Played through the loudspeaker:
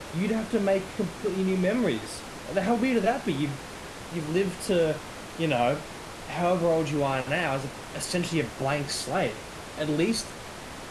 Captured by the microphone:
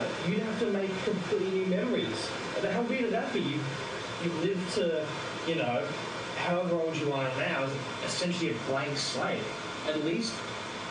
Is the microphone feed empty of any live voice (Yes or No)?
Yes